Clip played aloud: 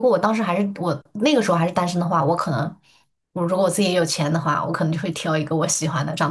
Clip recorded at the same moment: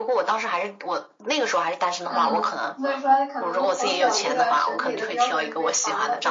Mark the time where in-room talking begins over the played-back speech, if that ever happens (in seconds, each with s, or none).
2.0 s